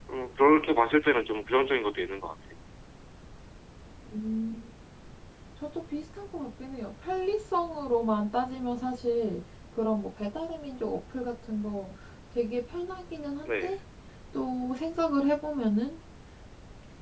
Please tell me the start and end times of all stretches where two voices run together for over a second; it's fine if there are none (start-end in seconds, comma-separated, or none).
none